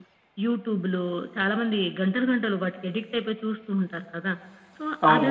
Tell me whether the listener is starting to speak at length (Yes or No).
No